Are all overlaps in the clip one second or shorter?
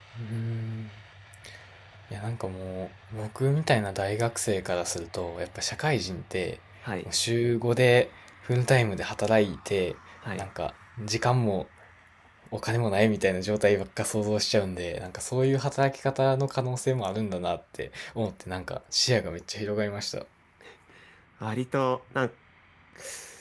Yes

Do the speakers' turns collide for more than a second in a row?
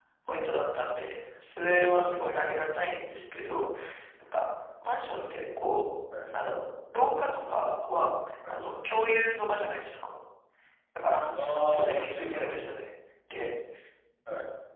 Yes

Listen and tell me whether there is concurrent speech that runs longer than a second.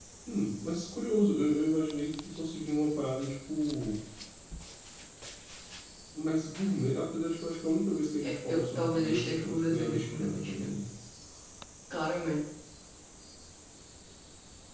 Yes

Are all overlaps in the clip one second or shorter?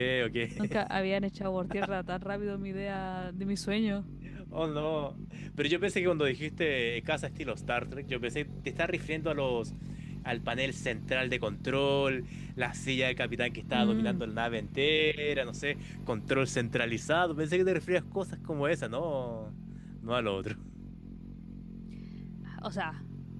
Yes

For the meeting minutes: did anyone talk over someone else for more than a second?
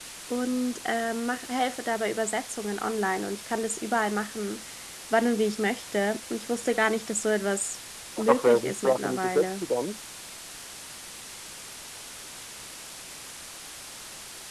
Yes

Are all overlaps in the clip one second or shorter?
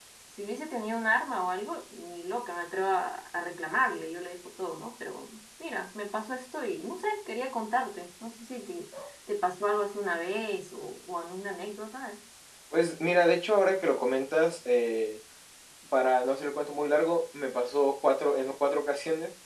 Yes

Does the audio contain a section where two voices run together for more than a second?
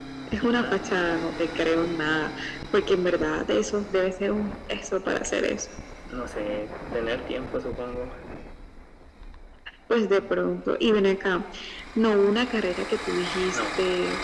No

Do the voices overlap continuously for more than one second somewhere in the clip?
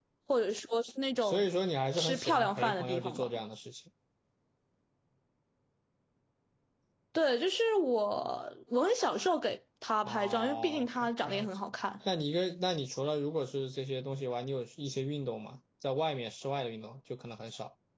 Yes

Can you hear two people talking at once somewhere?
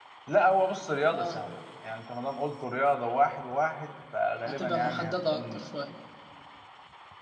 Yes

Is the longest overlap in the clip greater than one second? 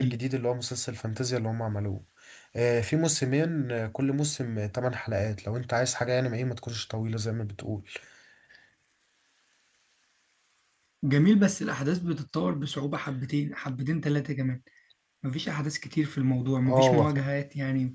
No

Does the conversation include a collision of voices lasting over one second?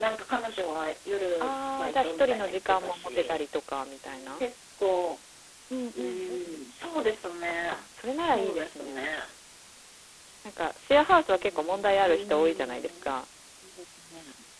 Yes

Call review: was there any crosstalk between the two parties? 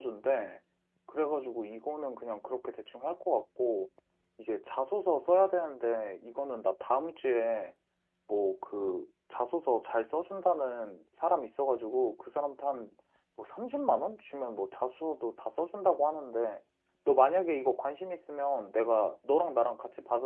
No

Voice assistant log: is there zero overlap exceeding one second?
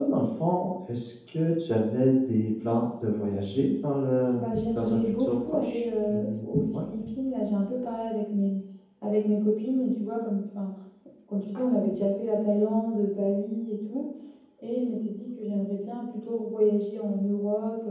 No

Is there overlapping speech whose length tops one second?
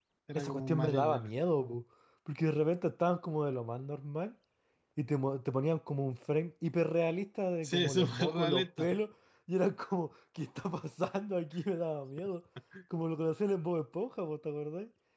Yes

